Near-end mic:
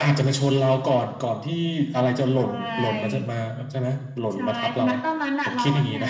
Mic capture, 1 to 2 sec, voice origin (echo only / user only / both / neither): echo only